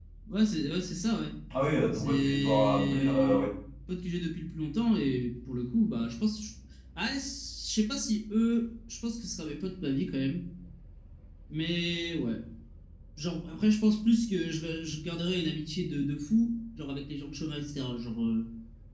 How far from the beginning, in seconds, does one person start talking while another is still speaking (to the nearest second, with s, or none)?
2 s